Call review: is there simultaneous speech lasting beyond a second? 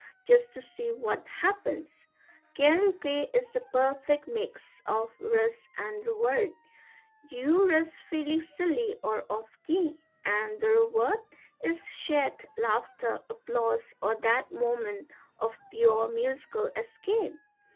No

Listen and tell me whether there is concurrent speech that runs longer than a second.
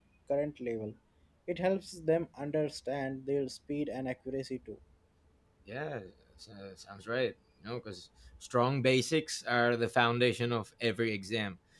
No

